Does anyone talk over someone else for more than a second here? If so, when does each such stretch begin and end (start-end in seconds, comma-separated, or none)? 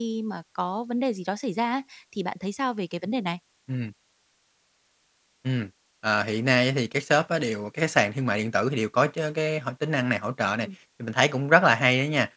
none